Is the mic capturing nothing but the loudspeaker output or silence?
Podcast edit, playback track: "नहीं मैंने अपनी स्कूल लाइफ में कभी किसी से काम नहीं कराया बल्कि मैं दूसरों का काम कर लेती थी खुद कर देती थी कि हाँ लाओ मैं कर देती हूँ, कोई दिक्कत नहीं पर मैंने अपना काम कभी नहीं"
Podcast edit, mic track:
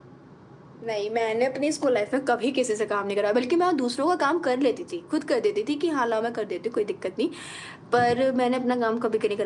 Yes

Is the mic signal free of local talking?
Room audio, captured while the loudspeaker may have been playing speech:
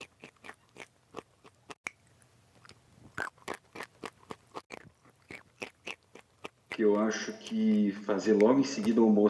No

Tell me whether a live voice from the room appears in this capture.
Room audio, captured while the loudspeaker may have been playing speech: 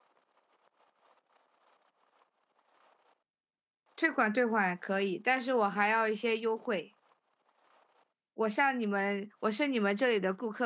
Yes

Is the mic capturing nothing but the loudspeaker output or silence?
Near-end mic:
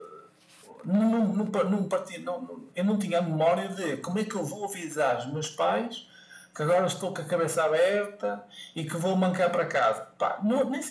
Yes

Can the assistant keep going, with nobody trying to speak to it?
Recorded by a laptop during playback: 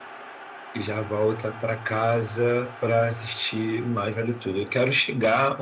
Yes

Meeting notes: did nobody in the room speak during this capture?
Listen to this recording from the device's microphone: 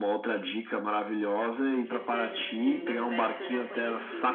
No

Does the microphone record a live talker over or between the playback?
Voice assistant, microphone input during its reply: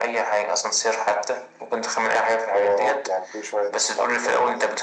No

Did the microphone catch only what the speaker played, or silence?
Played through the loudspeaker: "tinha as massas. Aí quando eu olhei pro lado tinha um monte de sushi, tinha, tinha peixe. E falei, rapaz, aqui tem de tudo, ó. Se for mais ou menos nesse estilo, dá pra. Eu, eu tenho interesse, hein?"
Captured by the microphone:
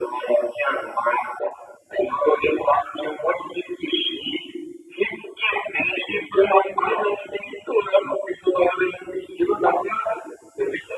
Yes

